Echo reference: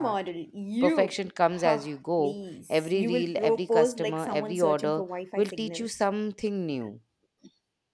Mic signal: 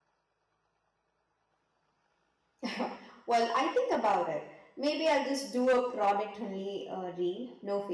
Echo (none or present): none